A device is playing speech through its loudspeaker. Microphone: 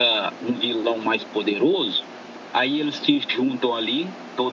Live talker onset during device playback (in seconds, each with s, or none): none